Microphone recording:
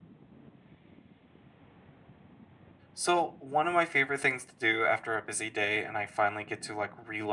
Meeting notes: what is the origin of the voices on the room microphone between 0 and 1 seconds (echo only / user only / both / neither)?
neither